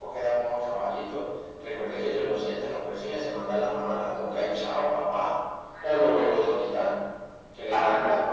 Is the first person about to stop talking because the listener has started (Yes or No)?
No